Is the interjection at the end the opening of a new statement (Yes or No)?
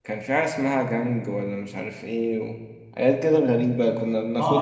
Yes